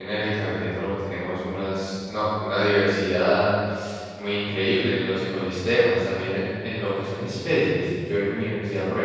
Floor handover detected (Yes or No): No